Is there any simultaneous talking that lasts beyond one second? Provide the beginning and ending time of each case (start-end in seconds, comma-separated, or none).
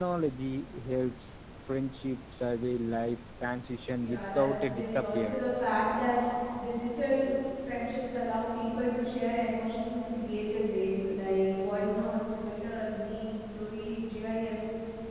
3.9-5.5